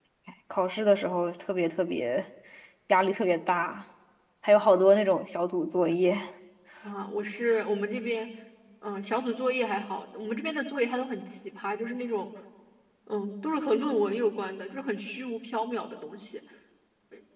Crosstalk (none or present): none